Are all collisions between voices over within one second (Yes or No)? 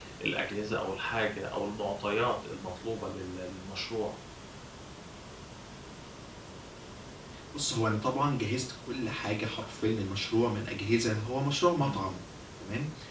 Yes